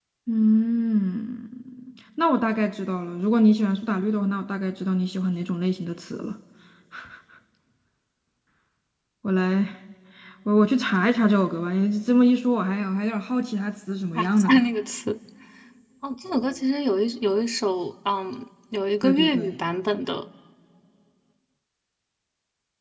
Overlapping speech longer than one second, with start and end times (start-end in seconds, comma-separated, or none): none